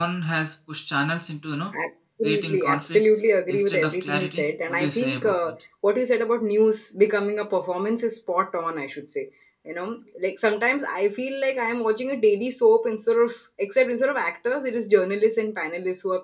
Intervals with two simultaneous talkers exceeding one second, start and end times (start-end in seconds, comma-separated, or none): 2.2-5.4